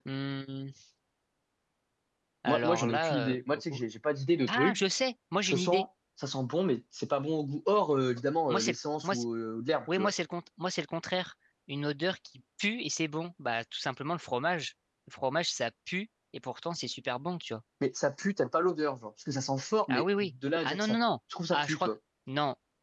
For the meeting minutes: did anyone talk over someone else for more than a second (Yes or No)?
Yes